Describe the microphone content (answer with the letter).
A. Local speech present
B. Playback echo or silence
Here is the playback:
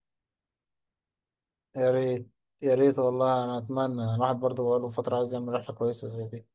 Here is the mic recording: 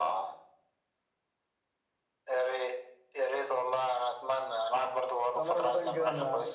A